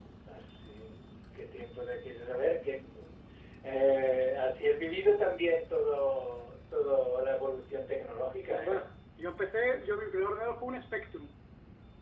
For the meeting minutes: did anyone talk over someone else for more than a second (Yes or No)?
No